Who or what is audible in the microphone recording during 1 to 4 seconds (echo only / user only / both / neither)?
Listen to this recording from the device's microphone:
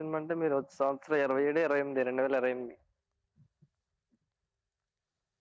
user only